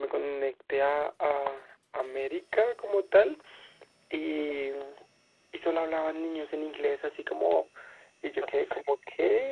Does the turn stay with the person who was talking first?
Yes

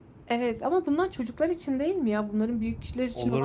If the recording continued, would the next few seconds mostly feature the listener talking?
Yes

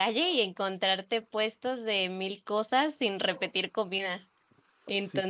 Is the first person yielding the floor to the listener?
No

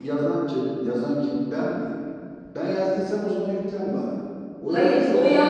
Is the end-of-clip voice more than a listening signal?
Yes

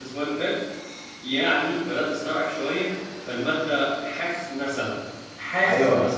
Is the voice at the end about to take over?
Yes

